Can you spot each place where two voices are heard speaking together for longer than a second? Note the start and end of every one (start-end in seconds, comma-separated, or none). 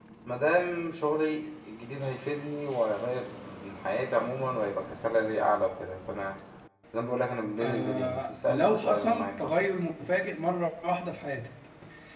7.6-9.5